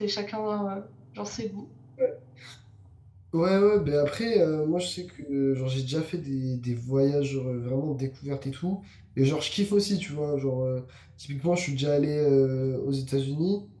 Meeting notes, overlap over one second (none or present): none